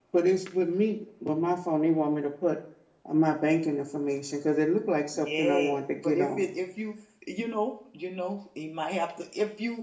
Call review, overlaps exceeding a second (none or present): present